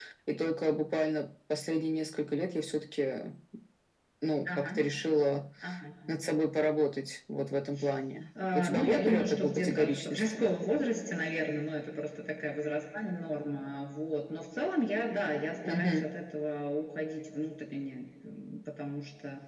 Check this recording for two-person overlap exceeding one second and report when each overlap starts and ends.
8.5-10.4

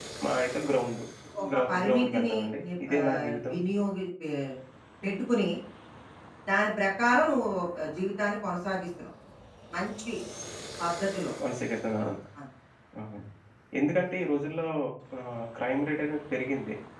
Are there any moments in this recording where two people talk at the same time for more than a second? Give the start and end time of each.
1.7-3.5

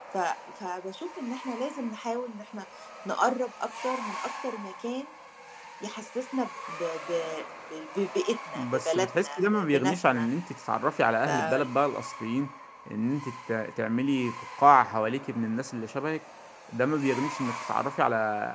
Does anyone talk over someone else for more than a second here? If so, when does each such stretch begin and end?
8.6-10.3

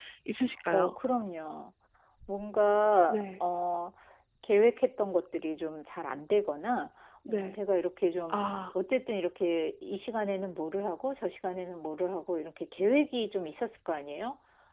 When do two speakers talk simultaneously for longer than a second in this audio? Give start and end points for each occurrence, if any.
none

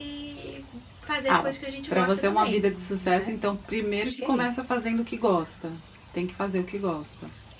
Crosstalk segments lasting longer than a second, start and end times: 1.9-3.3

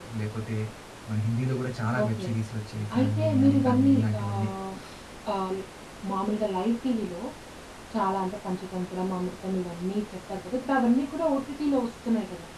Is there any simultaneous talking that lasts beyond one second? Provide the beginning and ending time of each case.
3.0-4.5

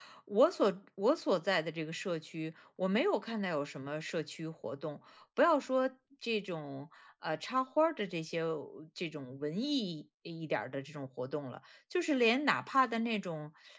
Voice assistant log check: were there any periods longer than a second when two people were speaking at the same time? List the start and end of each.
none

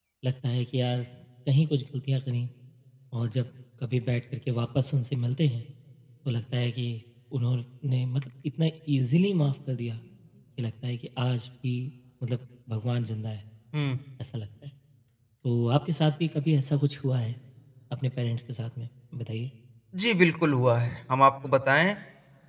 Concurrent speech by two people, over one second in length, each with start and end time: none

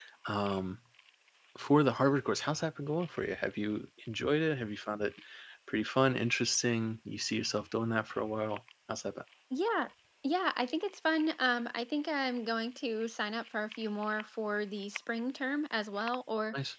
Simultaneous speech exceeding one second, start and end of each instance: none

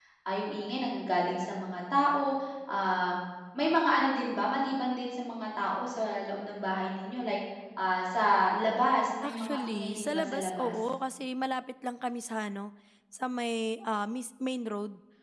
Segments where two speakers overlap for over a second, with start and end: 9.2-10.8

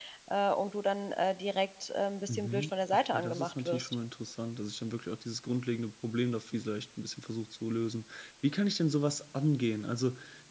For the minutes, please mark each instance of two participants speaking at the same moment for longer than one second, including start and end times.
2.3-3.9

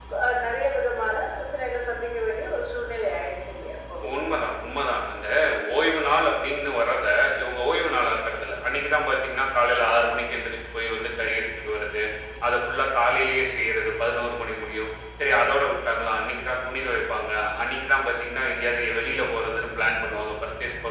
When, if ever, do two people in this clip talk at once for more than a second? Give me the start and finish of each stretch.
none

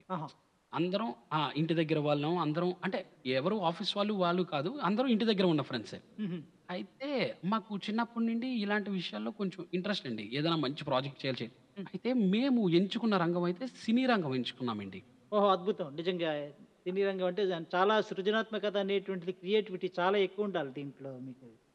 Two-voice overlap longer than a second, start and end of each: none

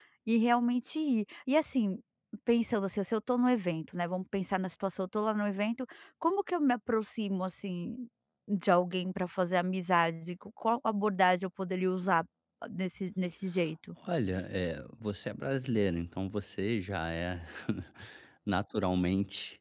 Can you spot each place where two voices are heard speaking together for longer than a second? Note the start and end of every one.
none

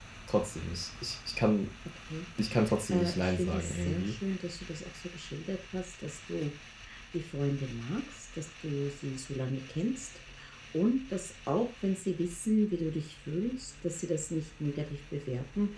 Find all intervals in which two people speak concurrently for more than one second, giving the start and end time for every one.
2.9-4.1

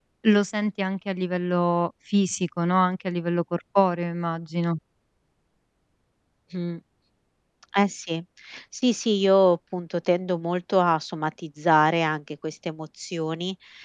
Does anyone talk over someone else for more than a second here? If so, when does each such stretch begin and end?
none

